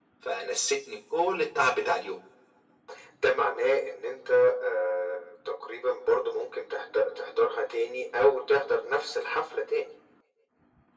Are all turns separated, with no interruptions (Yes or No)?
Yes